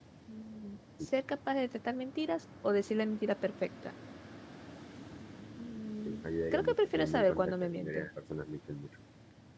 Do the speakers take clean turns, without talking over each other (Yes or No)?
No